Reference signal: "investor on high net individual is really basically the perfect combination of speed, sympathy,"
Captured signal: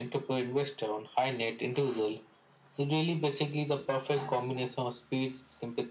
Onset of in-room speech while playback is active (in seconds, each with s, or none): none